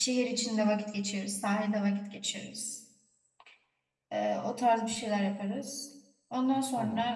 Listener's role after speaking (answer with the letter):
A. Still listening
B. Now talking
A